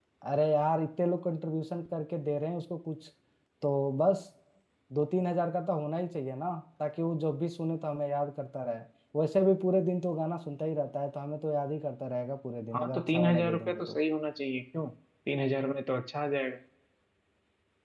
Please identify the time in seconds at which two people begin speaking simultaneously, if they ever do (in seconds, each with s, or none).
12.7 s